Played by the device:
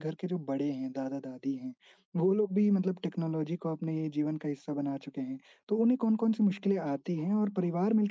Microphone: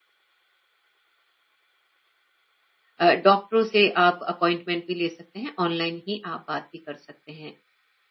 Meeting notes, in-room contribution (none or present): present